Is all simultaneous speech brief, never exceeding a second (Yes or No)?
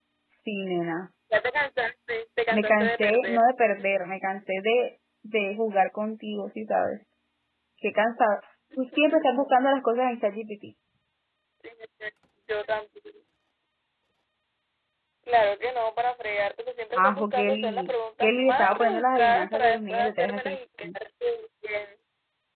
No